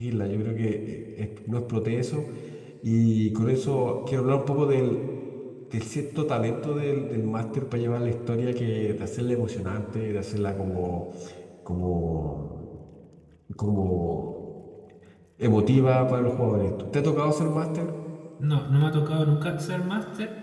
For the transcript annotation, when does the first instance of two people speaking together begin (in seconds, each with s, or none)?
none